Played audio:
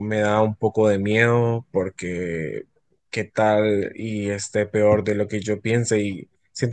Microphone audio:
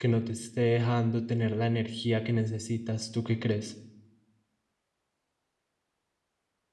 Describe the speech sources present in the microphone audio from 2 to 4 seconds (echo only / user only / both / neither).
user only